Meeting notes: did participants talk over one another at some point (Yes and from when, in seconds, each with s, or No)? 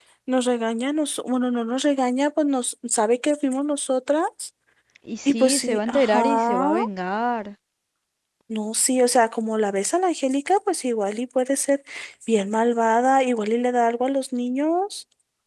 Yes, from 5.2 s